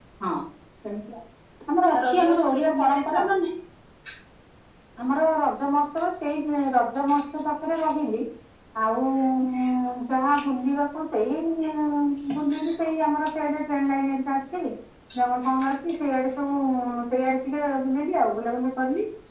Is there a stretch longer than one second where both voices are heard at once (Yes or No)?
Yes